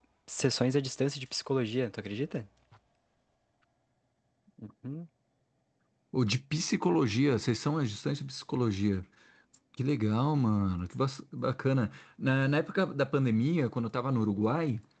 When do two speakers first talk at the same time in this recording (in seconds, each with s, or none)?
none